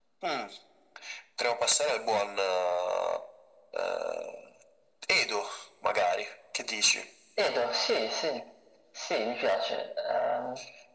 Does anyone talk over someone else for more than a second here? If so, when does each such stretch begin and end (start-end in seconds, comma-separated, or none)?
none